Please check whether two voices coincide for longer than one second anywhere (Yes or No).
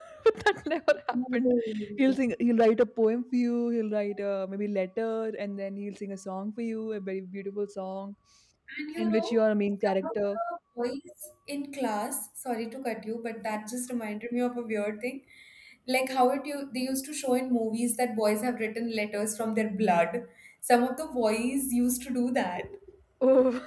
No